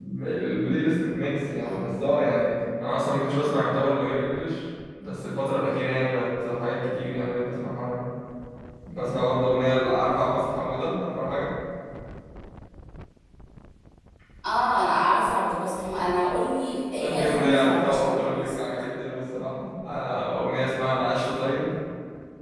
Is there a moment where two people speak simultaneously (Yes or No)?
Yes